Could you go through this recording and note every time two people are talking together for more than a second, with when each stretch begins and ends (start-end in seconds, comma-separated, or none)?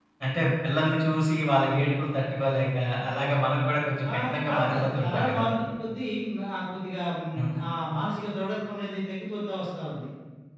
4.1-5.4